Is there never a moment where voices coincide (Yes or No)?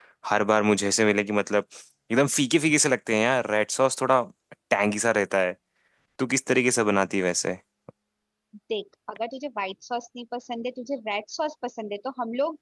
Yes